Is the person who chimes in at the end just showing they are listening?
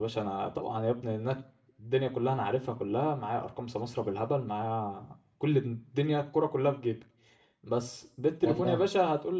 Yes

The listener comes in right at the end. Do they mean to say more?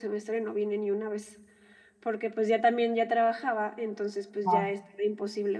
No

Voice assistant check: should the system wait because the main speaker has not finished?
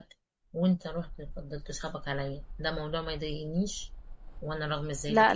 No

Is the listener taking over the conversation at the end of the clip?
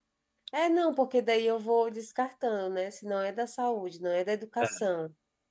No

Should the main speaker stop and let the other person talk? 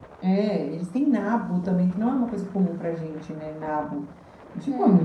No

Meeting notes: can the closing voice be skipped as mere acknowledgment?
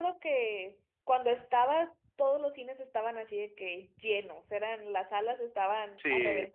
Yes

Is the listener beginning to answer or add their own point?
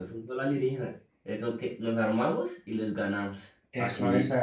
Yes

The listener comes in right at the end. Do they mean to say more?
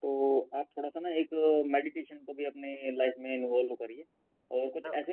No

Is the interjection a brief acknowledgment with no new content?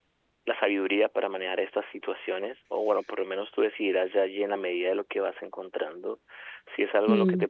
Yes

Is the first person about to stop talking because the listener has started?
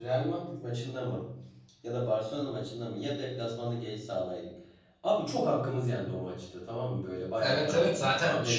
Yes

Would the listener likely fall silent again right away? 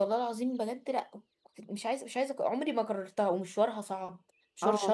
Yes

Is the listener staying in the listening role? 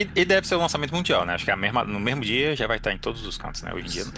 No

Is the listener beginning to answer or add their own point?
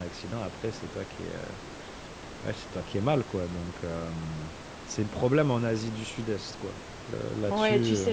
Yes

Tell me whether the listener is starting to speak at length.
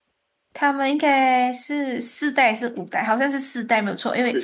No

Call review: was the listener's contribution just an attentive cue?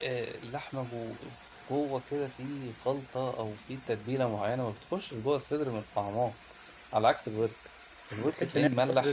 No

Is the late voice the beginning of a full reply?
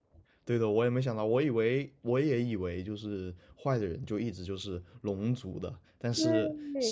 No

